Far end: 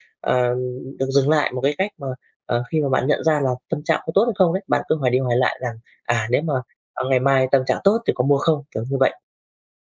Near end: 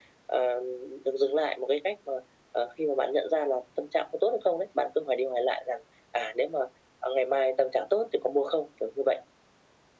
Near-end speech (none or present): none